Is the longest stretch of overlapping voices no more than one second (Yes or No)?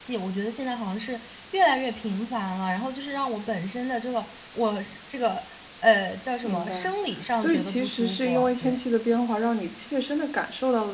No